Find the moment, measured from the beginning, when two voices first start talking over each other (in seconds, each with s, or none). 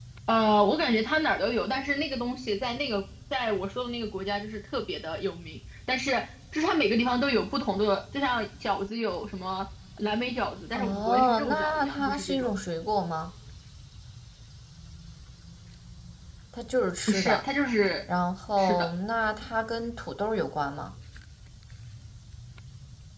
10.7 s